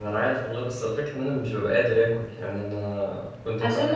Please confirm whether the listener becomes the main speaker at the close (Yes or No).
Yes